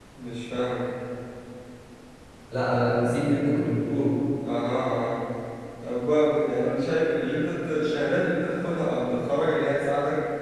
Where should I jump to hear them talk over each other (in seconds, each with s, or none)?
none